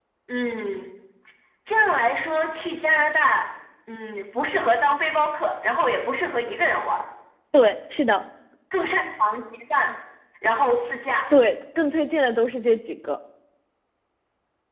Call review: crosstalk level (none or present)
none